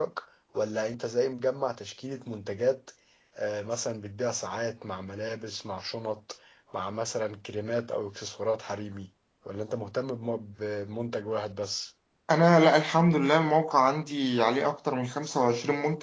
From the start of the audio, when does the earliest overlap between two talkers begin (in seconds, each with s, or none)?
none